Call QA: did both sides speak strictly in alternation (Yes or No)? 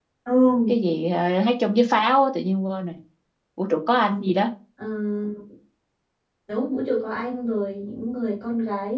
Yes